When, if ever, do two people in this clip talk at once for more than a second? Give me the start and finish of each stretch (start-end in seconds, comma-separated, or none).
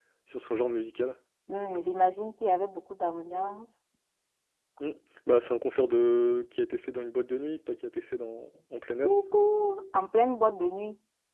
none